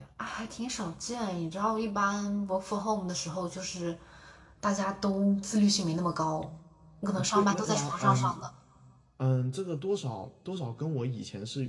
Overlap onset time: 7.1 s

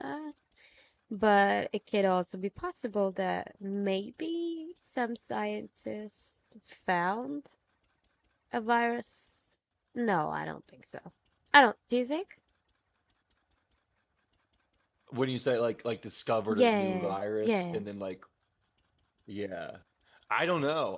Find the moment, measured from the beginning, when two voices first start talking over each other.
16.5 s

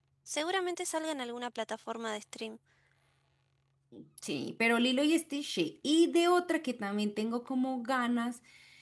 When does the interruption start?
none

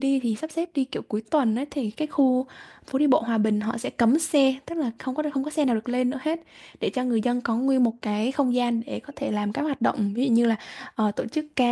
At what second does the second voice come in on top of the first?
none

